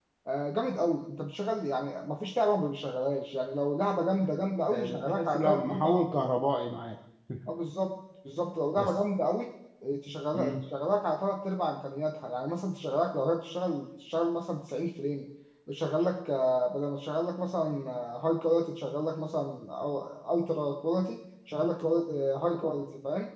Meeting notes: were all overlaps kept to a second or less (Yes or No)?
No